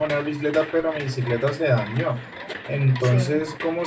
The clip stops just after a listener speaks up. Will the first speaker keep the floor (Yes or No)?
Yes